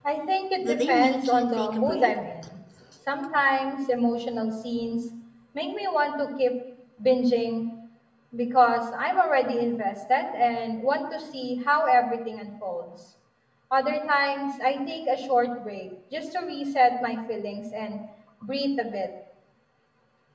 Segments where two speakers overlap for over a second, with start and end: 0.6-2.1

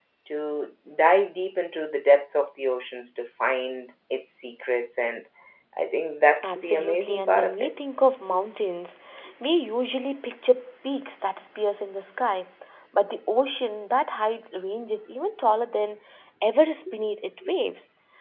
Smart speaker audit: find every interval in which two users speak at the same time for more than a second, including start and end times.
6.4-7.7

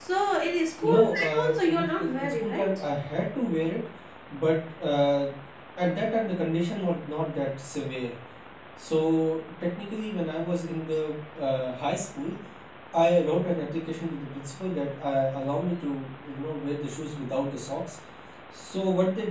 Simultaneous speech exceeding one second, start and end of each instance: 0.8-2.7

